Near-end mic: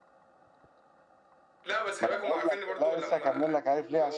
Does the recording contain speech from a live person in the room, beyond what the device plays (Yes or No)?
Yes